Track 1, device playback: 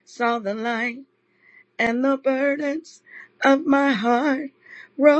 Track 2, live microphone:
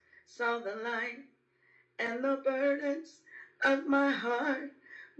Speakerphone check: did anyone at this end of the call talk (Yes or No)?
No